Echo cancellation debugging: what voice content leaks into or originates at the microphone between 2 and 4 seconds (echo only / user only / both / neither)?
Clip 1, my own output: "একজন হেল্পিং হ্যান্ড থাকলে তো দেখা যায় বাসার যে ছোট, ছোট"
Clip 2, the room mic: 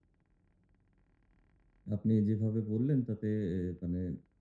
user only